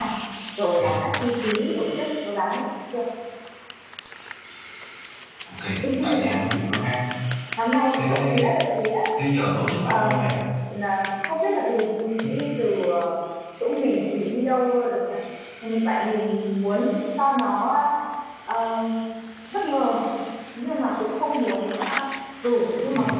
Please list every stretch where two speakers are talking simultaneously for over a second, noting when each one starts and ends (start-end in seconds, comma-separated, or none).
none